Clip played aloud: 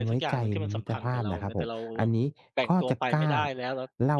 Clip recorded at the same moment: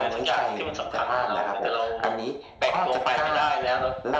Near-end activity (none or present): none